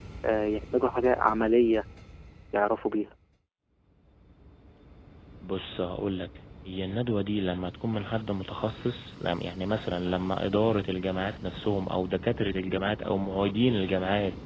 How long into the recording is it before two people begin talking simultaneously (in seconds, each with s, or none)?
none